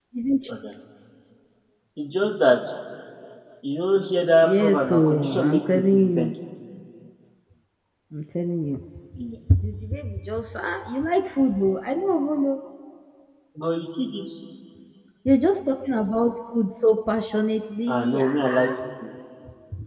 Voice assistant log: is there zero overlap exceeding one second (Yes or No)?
No